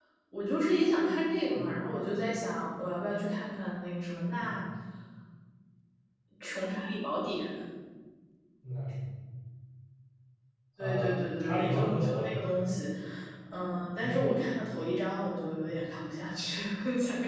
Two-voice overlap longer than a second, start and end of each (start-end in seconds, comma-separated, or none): 10.8-12.4